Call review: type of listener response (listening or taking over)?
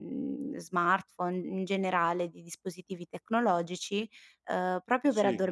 listening